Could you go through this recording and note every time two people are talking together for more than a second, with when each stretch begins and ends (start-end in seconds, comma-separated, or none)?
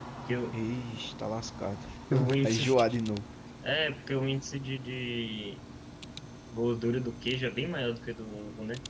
none